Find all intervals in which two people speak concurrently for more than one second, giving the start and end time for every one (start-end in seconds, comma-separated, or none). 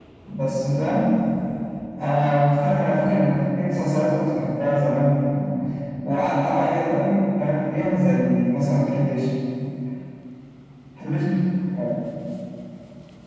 none